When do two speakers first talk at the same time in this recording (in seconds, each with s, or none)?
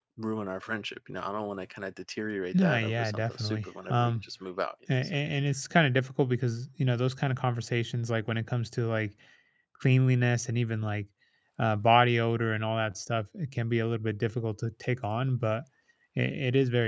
2.5 s